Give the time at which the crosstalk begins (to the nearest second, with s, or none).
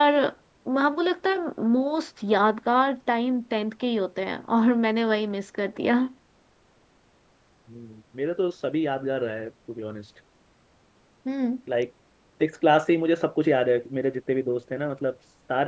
none